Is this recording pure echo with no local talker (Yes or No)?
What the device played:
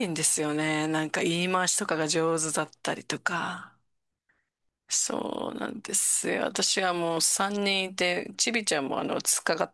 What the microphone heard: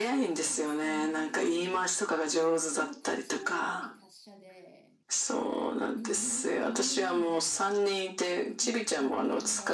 No